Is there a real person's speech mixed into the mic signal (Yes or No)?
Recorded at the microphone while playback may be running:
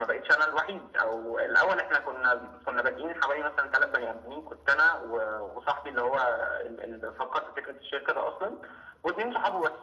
No